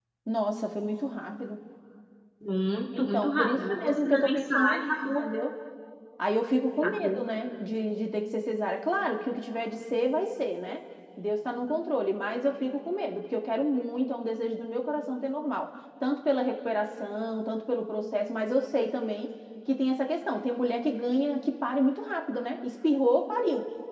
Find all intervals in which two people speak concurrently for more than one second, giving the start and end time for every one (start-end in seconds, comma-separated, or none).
3.0-5.2